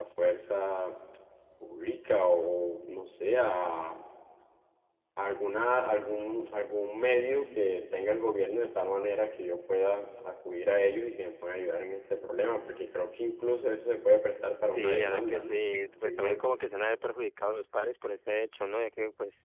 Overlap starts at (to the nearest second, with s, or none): 15 s